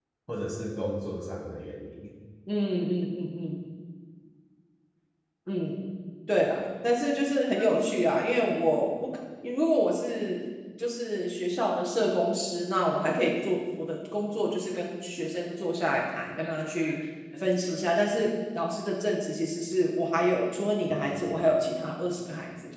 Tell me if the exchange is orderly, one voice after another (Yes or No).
Yes